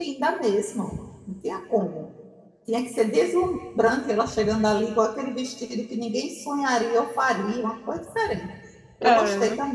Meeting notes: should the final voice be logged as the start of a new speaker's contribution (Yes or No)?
Yes